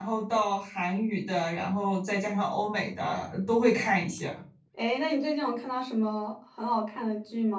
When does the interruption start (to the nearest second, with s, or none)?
none